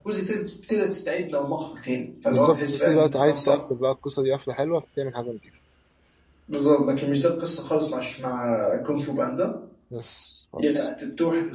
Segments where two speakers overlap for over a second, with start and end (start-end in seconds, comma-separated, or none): 2.3-3.6